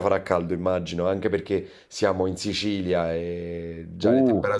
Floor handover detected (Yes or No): Yes